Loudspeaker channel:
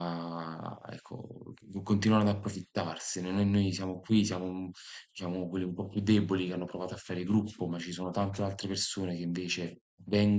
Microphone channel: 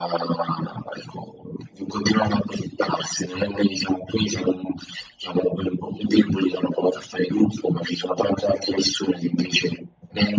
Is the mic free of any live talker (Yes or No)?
Yes